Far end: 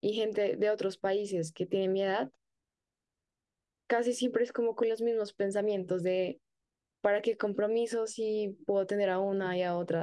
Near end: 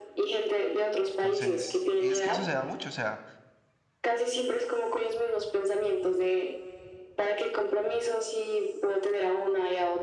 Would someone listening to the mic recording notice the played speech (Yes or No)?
Yes